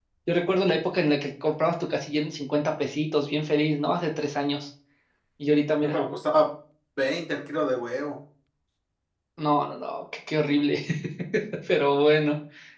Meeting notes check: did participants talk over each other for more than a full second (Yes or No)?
No